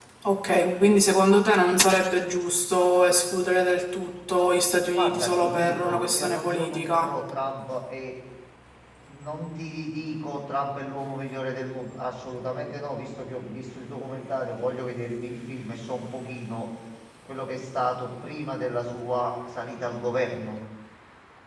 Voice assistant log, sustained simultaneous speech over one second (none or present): present